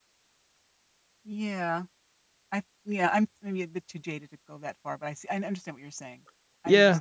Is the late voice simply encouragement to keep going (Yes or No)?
No